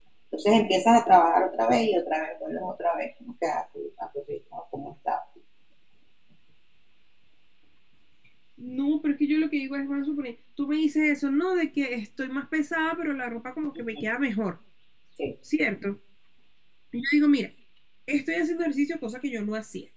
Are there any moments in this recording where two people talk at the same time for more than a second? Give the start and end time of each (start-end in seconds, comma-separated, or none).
none